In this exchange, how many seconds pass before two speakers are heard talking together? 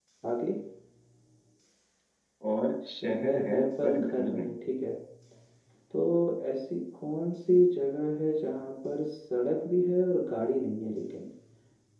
3.0 s

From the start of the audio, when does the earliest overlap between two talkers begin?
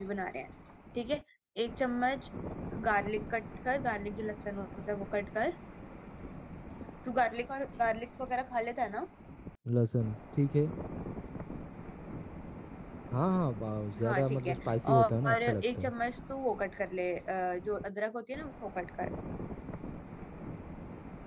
14.0 s

